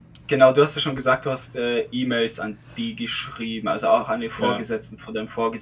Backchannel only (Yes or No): Yes